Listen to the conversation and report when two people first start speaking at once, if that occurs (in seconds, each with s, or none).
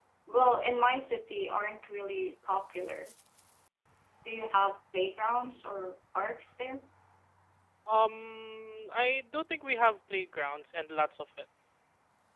none